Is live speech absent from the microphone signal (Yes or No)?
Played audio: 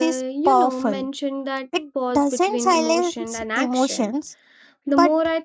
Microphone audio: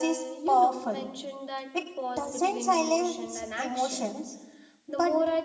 Yes